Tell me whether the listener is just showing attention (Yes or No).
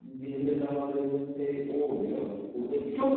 No